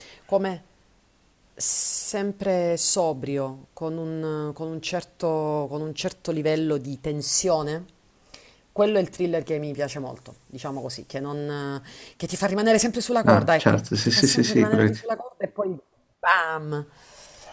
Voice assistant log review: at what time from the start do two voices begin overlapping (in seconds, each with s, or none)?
13.2 s